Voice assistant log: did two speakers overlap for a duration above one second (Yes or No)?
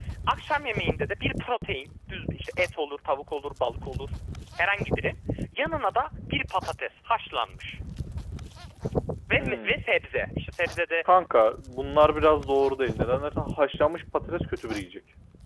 No